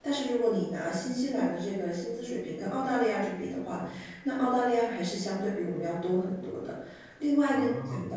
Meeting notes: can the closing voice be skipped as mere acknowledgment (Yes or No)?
Yes